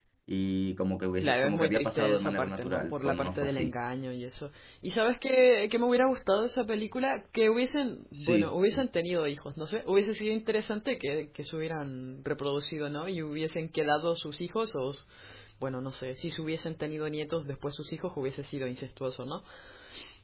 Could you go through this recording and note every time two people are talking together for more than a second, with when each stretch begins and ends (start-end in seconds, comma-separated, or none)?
1.2-3.8